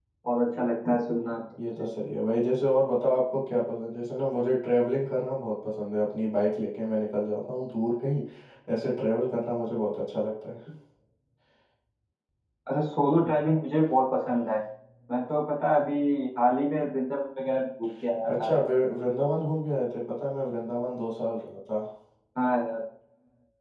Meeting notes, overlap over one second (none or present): none